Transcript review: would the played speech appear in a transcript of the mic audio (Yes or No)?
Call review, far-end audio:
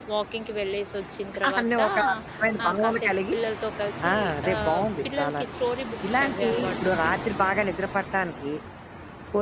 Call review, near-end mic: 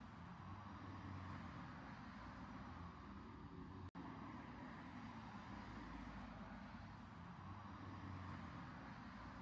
No